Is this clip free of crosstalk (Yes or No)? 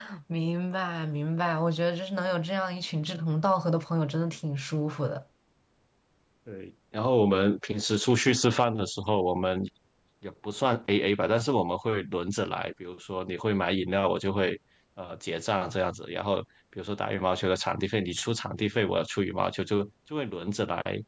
Yes